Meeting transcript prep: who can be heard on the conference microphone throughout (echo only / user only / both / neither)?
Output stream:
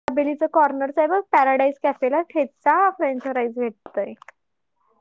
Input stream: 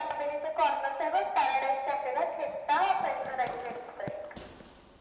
echo only